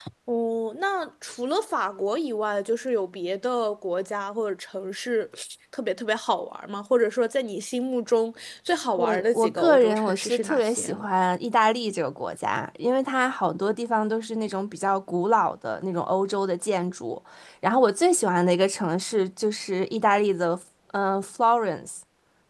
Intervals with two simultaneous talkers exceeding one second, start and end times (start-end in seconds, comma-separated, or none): 9.0-11.1